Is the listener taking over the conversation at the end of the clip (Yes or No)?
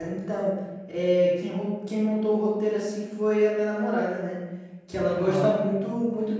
No